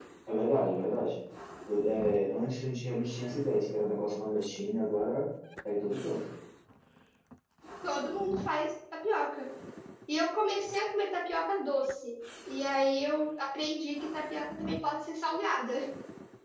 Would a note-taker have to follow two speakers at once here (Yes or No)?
No